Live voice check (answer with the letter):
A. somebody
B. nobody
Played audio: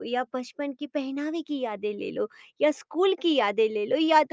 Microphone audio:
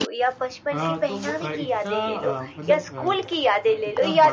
A